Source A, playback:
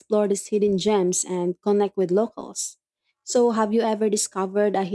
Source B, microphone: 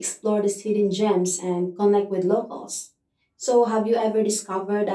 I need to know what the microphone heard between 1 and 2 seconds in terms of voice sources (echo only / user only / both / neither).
echo only